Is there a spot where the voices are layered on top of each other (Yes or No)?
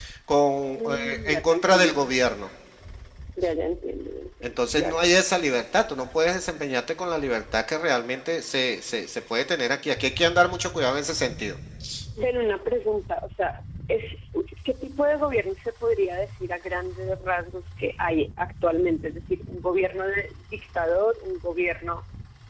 Yes